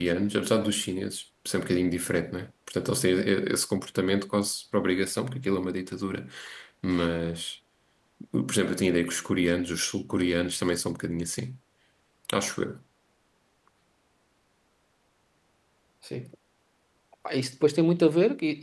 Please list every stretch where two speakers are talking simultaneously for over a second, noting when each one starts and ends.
none

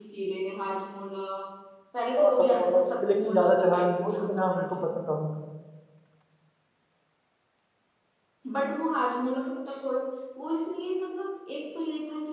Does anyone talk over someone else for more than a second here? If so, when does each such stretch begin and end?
2.2-4.7

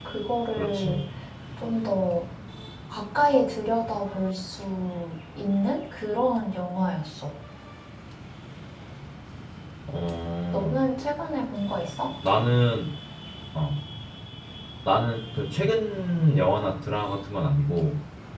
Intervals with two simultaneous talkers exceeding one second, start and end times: none

